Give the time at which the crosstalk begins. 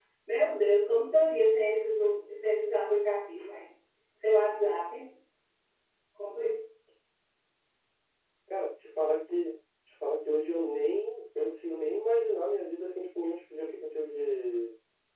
none

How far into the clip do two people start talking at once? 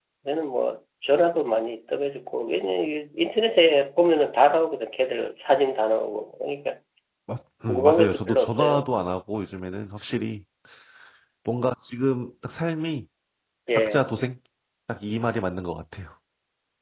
7.7 s

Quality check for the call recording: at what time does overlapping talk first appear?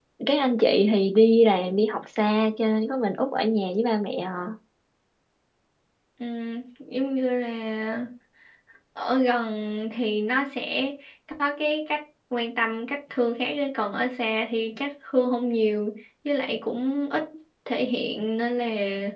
none

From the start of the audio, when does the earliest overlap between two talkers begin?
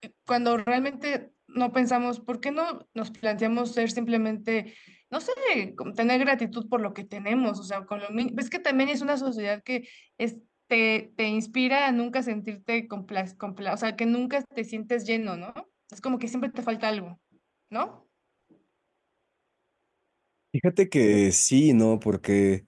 none

